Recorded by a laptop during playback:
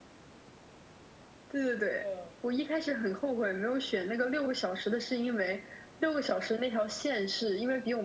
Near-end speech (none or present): present